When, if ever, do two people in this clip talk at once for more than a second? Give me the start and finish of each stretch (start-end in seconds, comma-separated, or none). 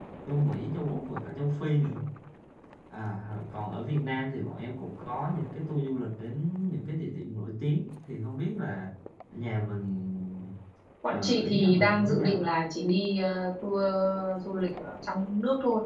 11.1-12.5